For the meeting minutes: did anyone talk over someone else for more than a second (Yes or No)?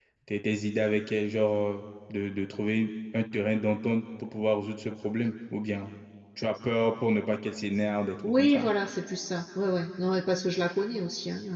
No